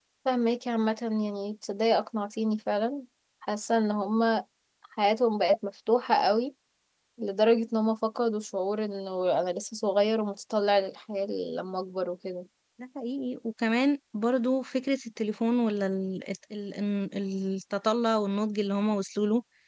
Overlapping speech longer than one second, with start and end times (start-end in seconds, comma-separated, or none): none